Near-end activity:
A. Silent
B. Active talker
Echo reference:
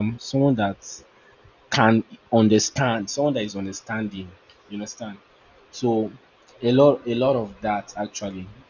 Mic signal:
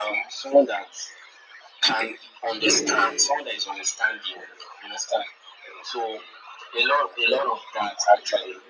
B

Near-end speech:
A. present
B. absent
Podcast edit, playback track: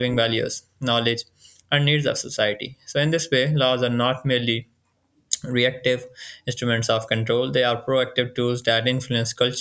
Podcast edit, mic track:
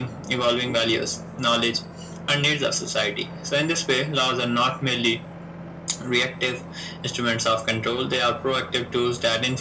B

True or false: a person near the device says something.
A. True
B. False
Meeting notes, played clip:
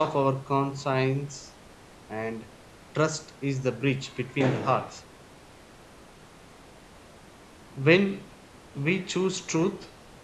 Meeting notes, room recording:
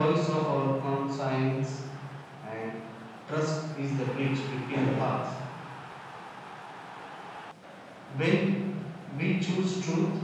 B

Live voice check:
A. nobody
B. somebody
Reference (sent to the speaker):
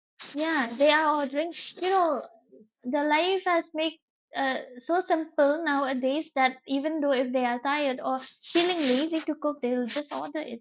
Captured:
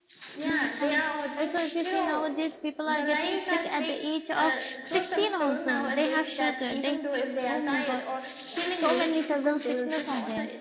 B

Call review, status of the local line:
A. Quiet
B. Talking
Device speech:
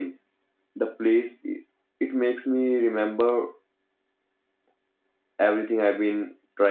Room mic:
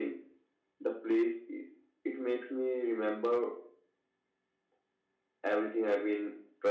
A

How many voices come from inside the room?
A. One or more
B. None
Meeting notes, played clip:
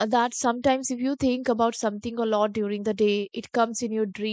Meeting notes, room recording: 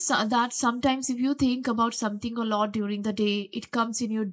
B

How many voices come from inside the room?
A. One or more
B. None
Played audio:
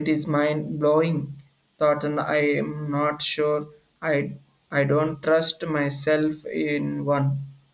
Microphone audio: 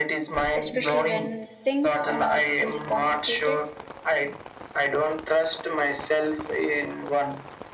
A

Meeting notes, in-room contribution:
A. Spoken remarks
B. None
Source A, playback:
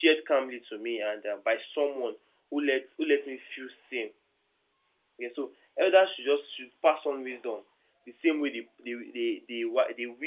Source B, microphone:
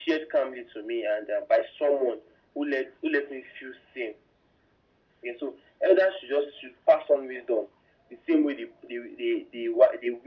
B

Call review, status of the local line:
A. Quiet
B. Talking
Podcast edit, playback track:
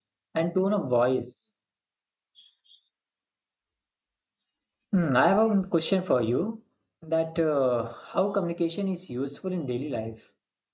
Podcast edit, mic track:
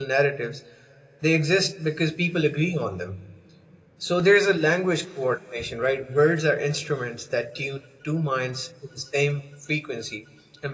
B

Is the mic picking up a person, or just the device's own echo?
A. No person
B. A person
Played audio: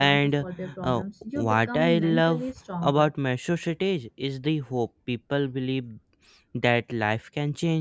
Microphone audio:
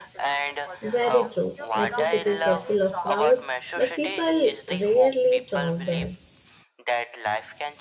B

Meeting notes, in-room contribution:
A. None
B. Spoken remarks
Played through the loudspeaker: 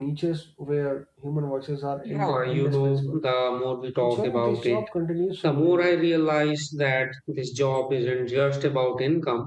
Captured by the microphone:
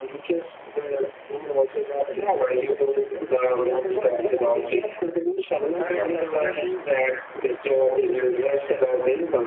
B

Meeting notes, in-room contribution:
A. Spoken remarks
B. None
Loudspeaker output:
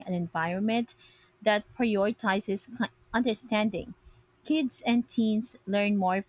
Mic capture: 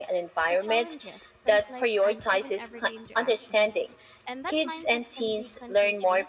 A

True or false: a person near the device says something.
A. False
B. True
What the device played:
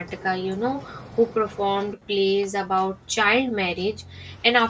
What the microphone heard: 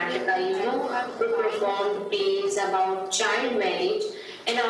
B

